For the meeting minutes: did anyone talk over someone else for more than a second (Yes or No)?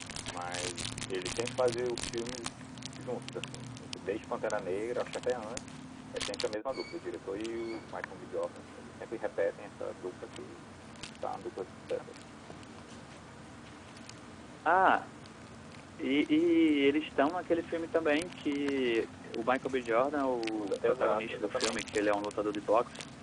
Yes